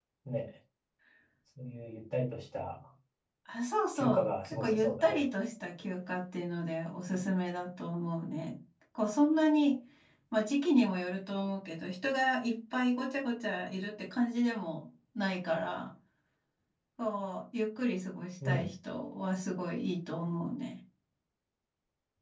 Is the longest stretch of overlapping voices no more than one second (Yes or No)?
No